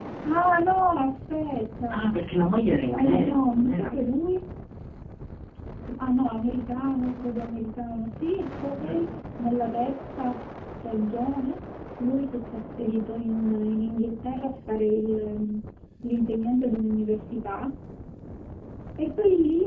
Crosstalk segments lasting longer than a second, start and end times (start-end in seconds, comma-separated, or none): 2.9-4.1